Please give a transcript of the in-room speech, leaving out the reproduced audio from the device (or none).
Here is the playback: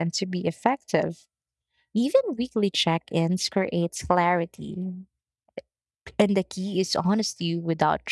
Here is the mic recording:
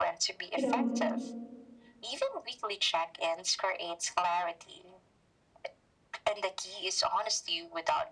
you know,